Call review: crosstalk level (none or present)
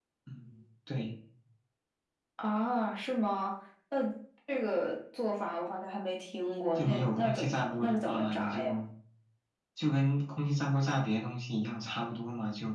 present